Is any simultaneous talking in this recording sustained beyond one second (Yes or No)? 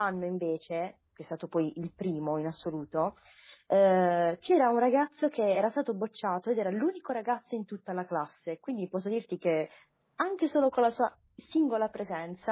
No